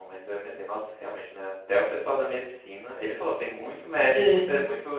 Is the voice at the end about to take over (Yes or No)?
No